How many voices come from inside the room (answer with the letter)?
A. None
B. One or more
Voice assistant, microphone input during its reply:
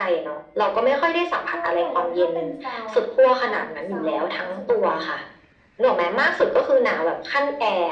B